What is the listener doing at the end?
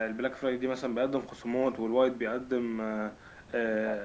listening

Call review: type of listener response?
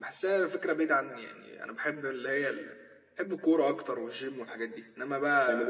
taking over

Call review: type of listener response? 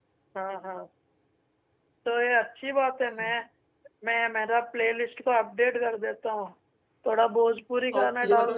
taking over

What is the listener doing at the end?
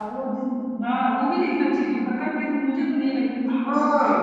taking over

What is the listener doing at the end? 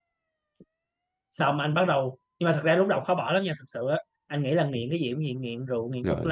listening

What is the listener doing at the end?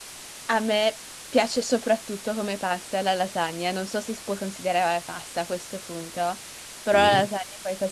listening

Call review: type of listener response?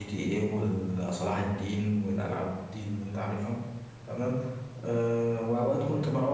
listening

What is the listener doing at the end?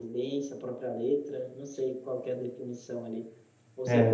listening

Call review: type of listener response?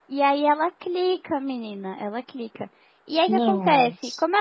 listening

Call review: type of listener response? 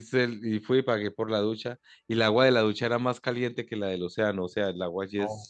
listening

